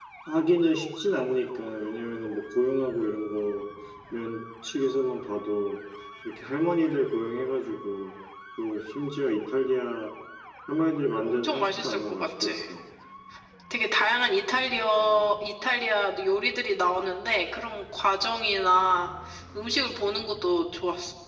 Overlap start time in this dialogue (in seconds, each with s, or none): 11.2 s